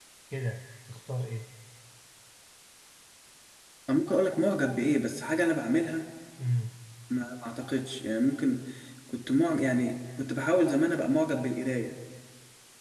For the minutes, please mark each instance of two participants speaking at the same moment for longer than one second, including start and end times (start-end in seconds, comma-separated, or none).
none